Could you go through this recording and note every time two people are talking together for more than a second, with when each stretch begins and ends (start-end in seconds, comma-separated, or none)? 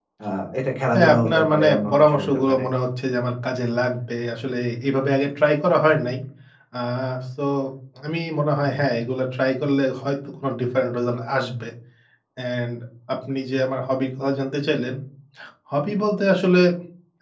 0.9-2.6